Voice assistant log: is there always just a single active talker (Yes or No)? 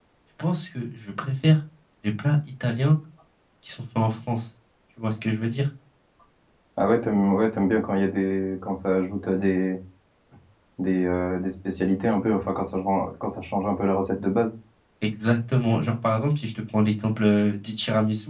Yes